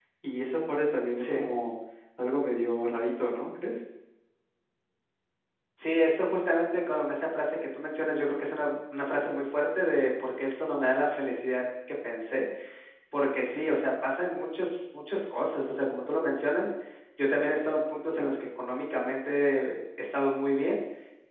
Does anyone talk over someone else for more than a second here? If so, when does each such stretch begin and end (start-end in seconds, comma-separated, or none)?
none